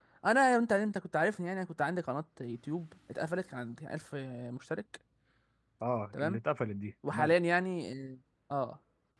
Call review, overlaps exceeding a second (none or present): none